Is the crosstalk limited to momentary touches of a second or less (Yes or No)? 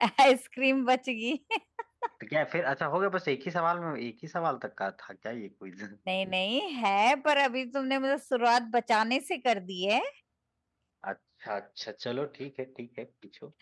Yes